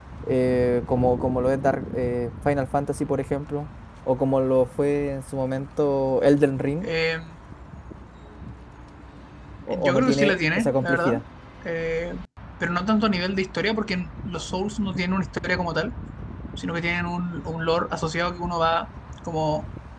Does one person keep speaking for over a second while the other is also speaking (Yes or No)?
Yes